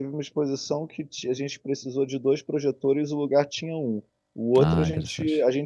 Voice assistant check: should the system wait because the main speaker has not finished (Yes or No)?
Yes